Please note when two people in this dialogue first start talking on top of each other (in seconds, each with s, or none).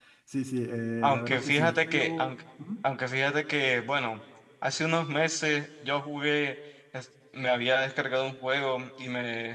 1.0 s